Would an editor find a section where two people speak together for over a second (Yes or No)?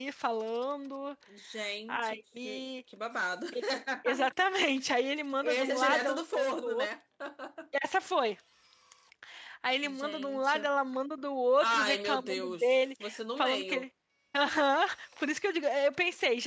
Yes